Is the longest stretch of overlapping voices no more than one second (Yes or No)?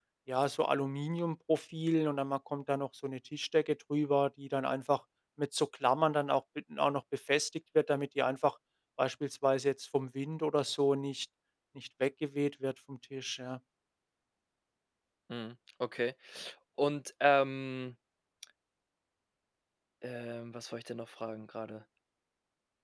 Yes